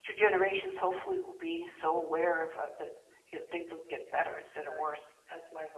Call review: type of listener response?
taking over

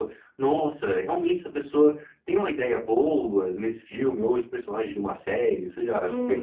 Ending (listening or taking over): taking over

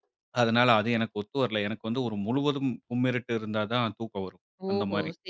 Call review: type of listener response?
taking over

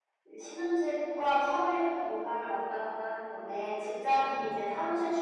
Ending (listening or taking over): listening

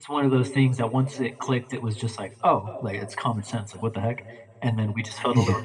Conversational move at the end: listening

